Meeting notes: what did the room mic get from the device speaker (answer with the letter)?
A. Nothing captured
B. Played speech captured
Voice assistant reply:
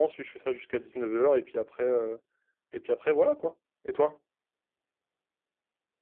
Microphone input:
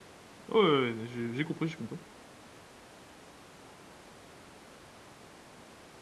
A